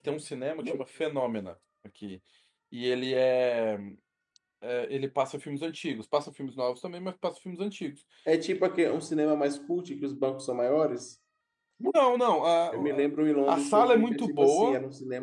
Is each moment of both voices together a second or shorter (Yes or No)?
No